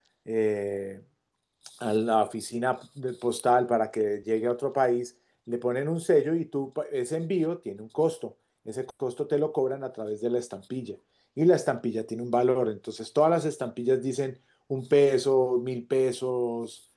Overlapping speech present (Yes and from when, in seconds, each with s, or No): No